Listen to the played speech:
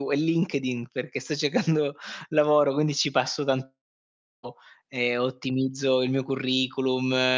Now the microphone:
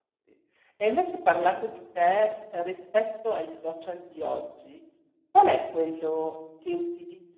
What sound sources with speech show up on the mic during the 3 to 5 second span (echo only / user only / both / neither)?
user only